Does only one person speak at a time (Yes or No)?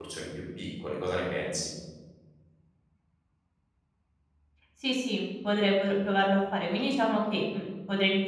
Yes